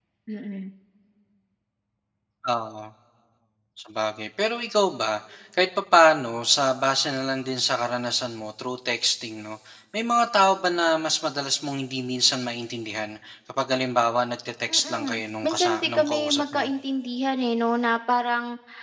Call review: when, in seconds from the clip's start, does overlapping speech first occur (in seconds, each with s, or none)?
14.7 s